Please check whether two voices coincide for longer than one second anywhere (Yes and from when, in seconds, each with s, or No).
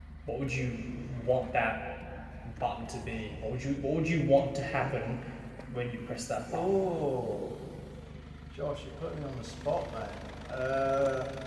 No